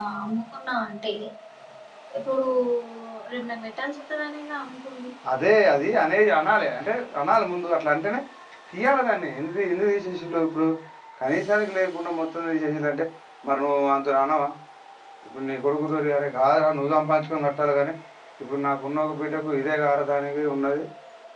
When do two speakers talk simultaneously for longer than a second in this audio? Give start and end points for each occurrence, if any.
none

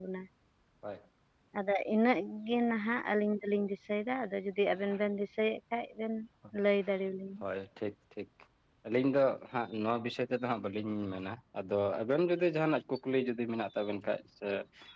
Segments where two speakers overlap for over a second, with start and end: none

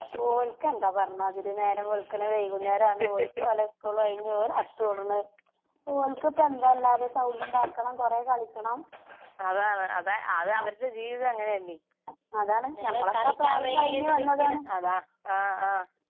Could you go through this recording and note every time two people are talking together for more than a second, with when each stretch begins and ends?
12.8-14.6

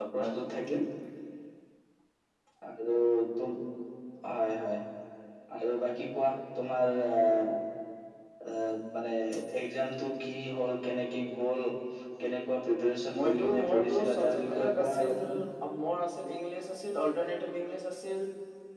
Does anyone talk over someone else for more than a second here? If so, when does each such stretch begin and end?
13.2-15.1

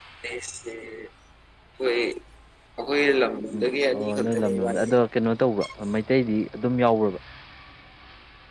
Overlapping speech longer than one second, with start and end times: 3.5-4.9

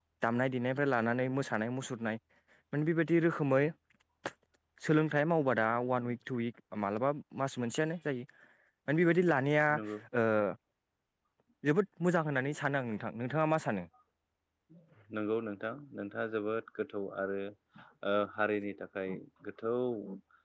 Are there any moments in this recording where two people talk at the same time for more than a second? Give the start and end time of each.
none

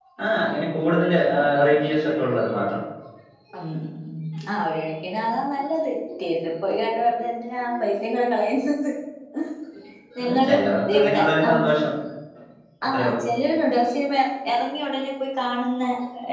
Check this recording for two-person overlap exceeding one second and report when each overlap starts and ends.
10.2-11.6

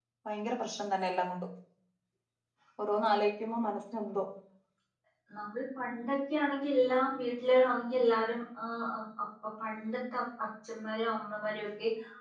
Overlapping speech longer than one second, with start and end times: none

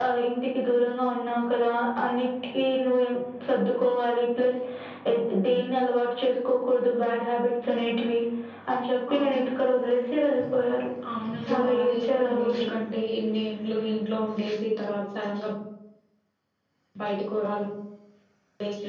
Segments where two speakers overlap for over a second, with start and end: 11.5-12.7

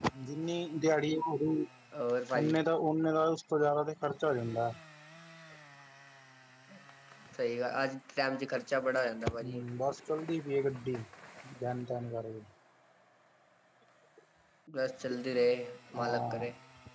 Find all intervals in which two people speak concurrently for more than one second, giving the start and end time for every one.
none

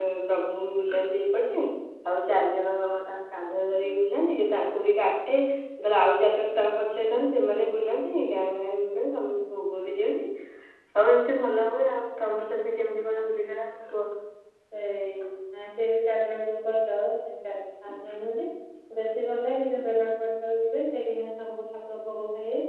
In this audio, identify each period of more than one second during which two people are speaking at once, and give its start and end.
none

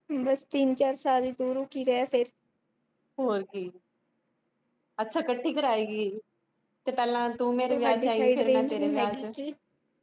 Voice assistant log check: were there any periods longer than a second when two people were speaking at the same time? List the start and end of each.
7.7-9.2

